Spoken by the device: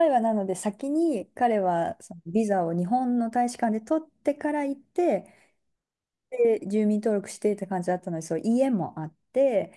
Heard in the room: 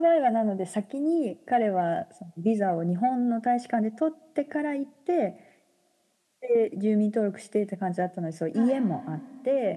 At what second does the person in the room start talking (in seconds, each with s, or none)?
8.5 s